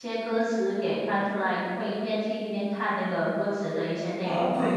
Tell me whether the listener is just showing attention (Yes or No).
No